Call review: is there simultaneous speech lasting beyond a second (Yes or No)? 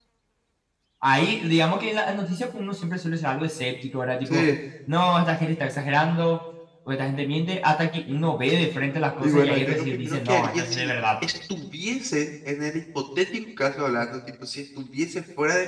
Yes